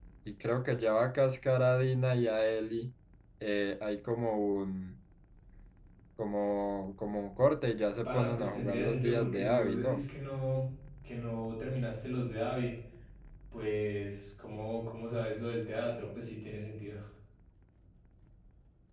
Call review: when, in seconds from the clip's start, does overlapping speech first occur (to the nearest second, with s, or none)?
8 s